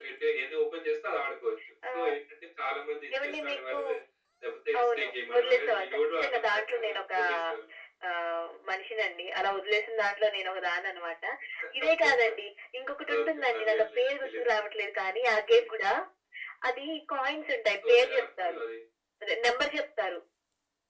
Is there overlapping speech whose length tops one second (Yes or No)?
Yes